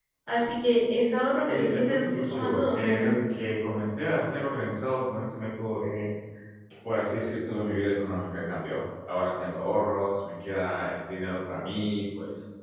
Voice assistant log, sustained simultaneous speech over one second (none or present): present